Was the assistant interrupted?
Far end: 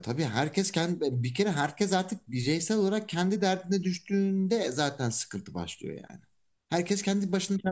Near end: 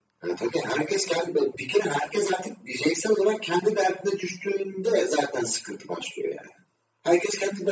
No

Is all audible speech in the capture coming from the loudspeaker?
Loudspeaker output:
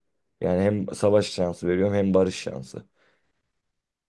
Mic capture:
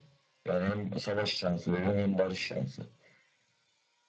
Yes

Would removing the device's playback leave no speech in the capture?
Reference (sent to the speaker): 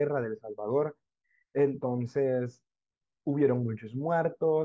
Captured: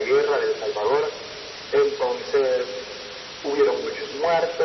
Yes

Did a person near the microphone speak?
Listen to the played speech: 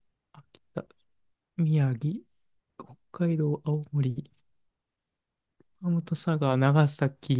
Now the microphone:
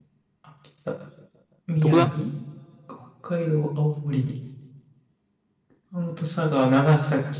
Yes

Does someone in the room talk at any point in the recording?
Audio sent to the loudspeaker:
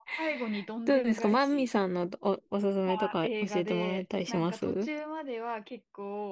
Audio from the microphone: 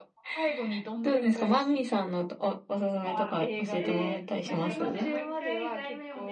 Yes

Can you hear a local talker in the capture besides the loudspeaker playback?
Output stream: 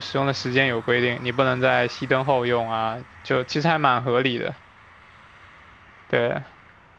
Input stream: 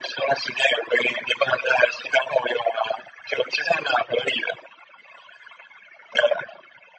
No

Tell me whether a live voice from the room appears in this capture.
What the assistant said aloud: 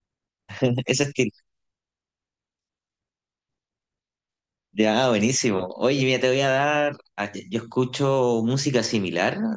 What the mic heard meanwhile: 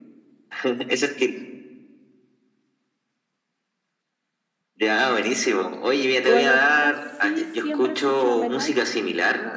Yes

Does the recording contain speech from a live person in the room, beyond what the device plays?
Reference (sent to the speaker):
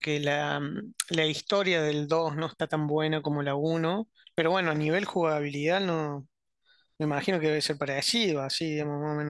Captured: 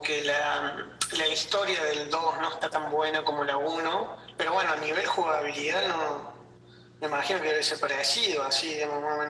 No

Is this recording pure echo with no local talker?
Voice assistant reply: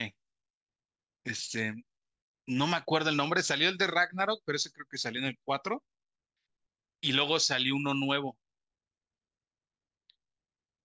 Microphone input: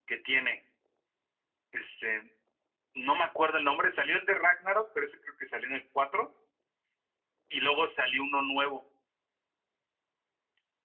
Yes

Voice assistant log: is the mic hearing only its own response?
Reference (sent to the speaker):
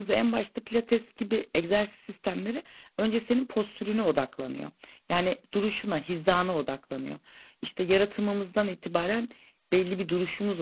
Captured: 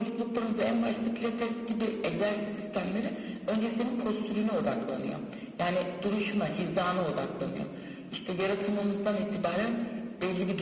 Yes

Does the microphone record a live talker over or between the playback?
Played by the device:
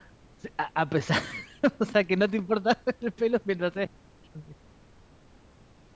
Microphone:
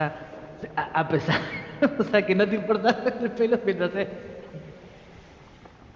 No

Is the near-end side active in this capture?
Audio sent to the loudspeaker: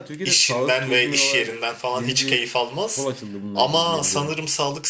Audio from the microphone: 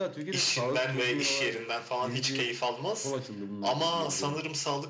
No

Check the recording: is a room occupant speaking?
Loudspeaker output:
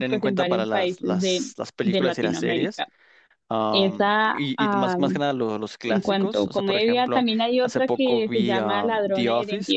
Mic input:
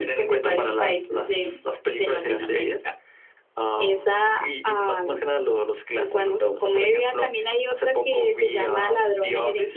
No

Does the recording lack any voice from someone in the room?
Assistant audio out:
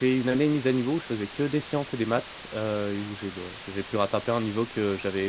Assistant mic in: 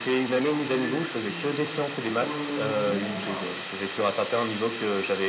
No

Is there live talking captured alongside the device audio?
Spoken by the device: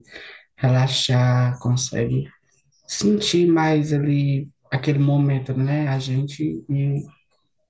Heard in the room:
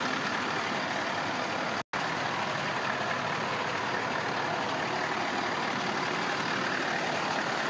No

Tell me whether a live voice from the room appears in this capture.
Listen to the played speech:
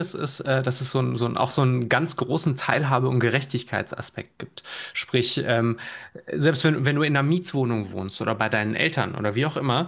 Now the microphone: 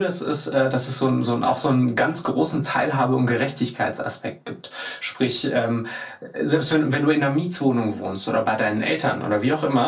No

